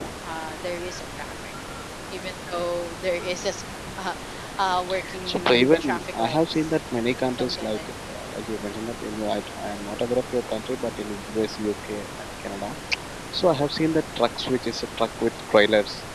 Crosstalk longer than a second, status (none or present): present